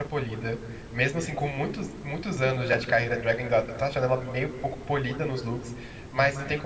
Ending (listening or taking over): listening